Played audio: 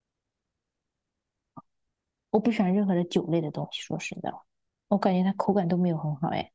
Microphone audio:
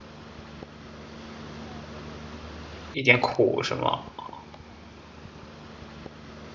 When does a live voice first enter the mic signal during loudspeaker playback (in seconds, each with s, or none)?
2.9 s